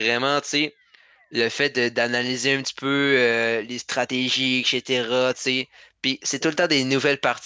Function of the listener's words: listening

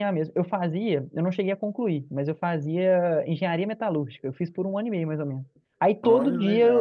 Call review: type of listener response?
listening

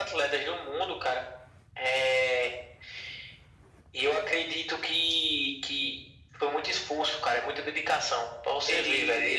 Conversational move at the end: listening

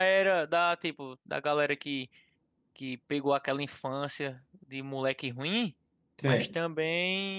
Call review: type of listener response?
listening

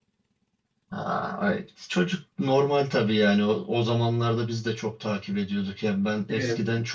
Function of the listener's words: listening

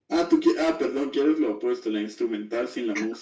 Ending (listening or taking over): taking over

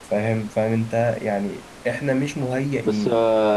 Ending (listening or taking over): taking over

